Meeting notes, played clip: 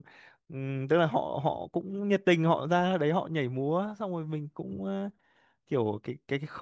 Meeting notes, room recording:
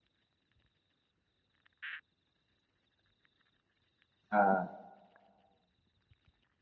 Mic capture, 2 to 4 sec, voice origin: neither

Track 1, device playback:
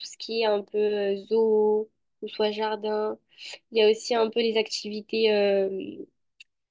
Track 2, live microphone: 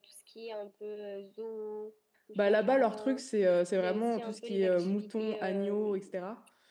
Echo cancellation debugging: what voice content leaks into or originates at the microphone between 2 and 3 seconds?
both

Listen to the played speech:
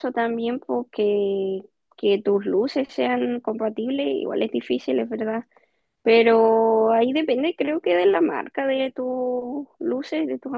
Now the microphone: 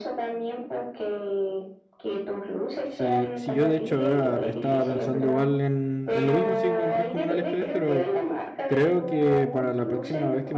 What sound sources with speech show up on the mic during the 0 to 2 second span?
echo only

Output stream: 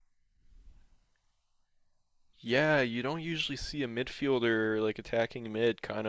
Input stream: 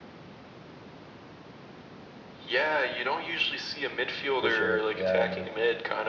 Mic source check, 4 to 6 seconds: both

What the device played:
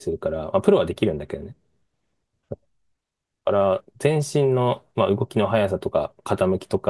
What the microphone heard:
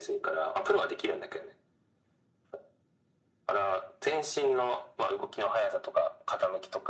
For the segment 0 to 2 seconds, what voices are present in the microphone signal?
echo only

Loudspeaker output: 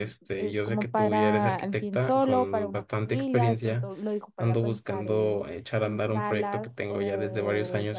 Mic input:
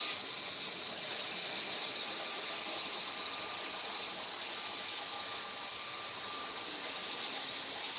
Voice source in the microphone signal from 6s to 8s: neither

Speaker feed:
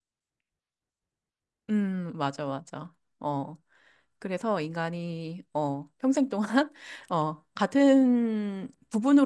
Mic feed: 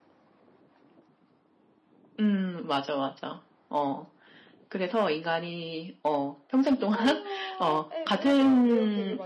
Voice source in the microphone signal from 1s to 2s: neither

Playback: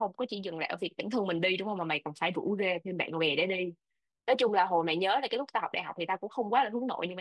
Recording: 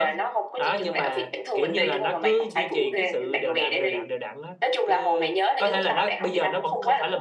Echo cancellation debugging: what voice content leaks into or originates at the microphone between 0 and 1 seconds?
both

